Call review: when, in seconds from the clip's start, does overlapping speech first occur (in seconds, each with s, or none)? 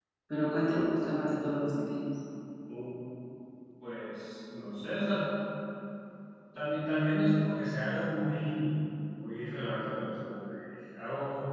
none